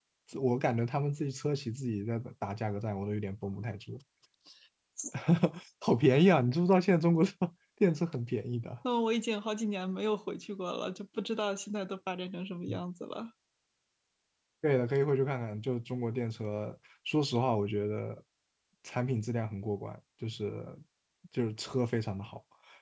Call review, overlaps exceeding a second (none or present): none